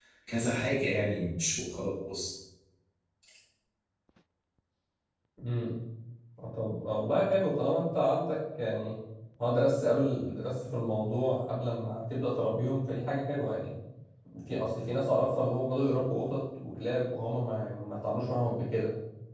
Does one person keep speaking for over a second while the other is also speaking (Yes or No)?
No